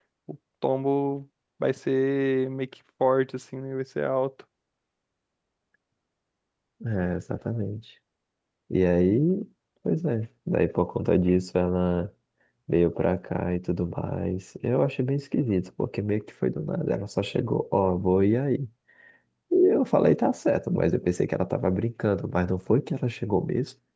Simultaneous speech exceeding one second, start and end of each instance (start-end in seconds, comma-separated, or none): none